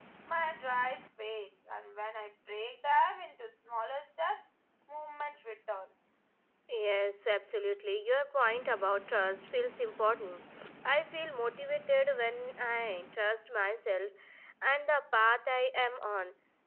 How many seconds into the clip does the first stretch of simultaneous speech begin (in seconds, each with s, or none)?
none